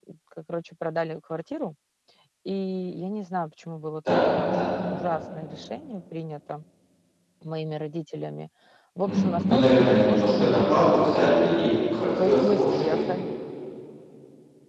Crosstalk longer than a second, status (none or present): present